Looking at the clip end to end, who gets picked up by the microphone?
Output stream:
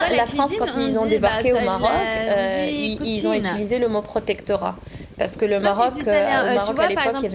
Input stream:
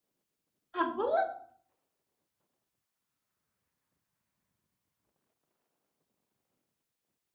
user only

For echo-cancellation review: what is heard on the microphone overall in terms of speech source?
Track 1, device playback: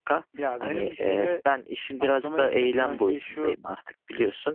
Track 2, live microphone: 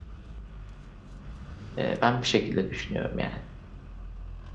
user only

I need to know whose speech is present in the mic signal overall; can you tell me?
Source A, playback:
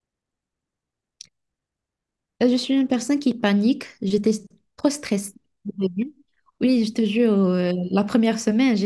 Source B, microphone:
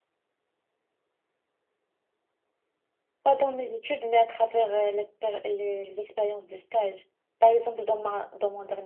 user only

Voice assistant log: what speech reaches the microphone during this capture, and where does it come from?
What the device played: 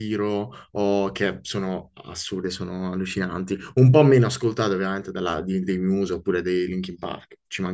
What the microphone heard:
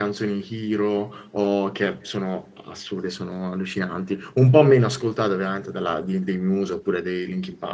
echo only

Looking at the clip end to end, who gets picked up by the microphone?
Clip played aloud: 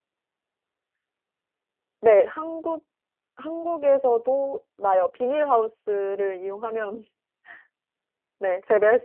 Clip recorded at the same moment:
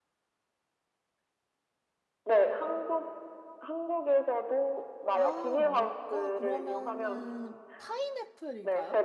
both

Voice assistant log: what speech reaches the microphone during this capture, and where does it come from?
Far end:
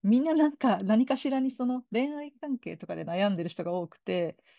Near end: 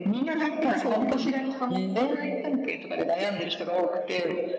both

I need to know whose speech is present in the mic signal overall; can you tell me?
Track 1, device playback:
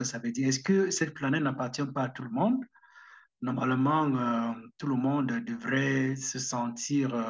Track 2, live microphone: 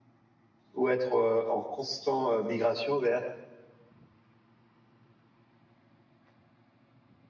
user only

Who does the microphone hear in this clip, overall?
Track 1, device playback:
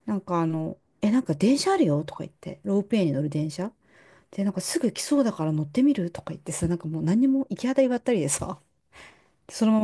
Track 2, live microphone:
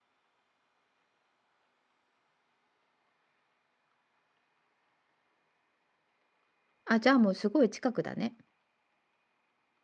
user only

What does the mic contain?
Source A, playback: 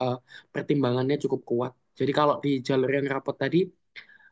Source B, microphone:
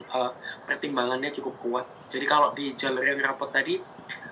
echo only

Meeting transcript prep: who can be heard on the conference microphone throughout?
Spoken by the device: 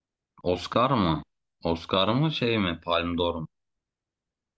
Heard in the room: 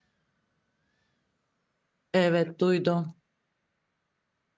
user only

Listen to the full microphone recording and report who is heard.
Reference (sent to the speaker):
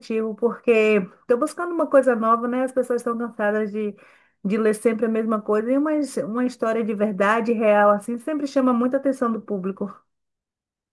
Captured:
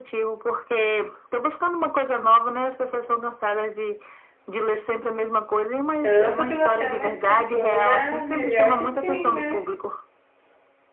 both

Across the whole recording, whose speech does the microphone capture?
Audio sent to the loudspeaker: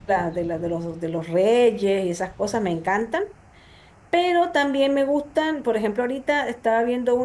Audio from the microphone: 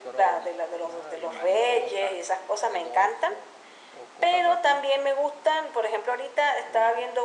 both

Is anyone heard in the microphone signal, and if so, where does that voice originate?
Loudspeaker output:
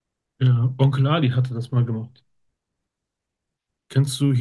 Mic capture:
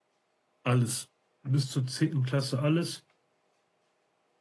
user only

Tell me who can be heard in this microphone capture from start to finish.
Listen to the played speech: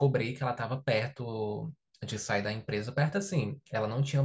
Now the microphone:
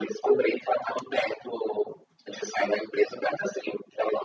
echo only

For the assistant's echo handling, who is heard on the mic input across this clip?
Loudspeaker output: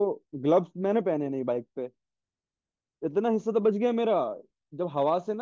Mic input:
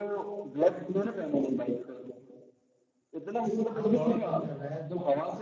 both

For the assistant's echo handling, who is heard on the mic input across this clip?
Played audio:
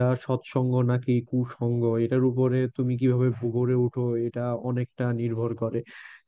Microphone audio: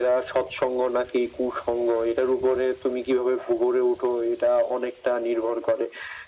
echo only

